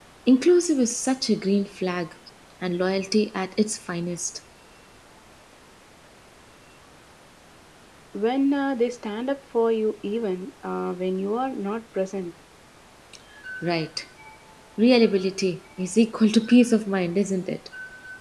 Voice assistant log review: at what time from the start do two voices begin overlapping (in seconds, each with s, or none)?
none